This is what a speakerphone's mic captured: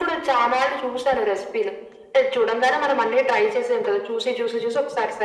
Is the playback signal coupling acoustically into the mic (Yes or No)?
Yes